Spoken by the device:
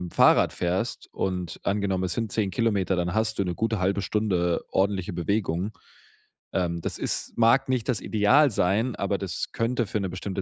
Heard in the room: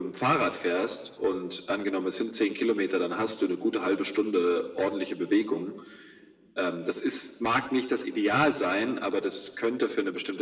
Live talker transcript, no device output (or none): none